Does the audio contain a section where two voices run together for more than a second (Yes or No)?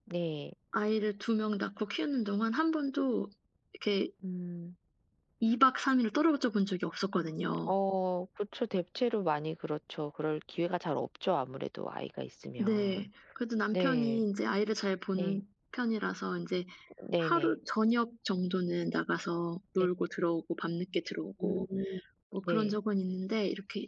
No